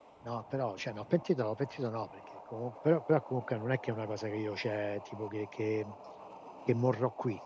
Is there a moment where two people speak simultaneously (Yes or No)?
No